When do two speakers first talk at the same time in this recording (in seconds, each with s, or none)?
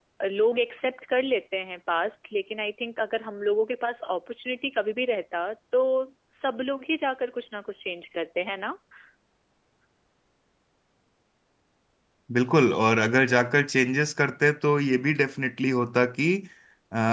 none